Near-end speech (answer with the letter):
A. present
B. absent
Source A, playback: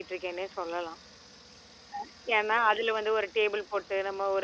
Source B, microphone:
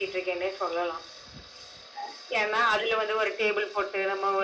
B